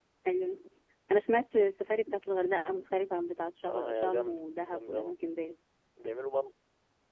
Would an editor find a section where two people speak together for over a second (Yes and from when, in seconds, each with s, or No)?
Yes, from 3.6 s